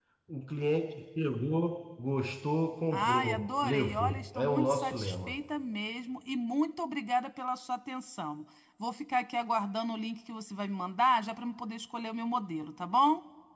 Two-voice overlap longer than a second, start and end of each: 2.9-5.4

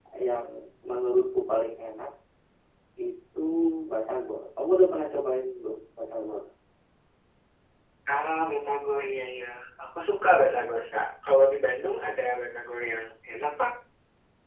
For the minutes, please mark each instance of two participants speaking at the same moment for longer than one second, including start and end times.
none

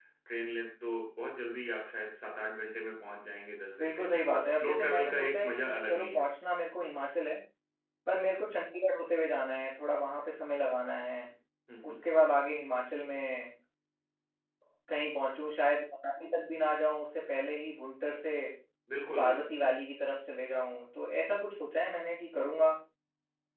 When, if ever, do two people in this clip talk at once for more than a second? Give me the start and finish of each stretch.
3.8-6.3

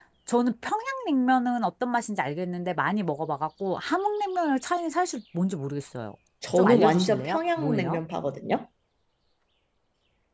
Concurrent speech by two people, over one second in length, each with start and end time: 6.5-8.0

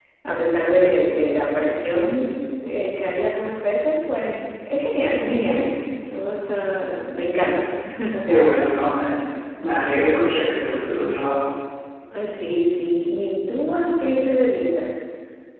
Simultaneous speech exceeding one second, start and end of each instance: none

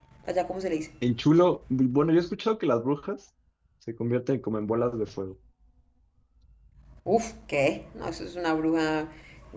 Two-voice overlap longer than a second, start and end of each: none

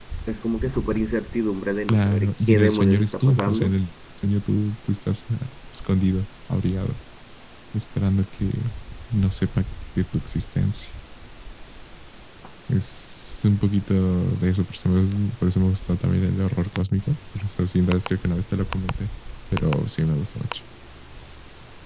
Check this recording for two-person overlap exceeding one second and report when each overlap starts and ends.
1.9-3.7

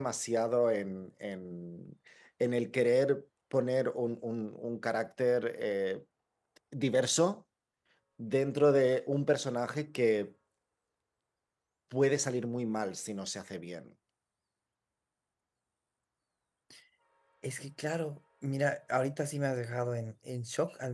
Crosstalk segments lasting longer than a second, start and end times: none

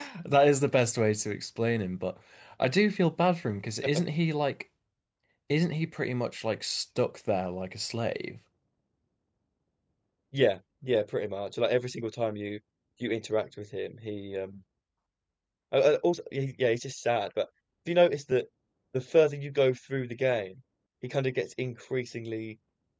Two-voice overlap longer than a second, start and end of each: none

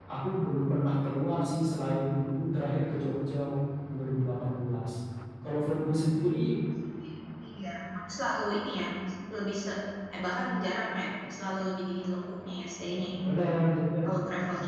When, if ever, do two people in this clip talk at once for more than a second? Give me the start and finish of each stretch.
none

